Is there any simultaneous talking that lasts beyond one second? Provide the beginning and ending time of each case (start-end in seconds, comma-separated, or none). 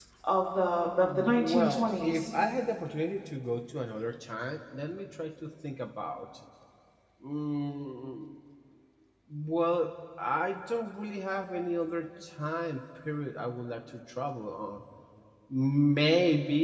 1.0-2.3